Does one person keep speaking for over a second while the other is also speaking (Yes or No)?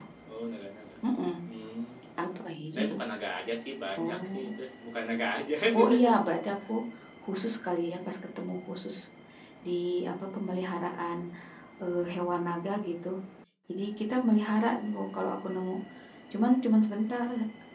No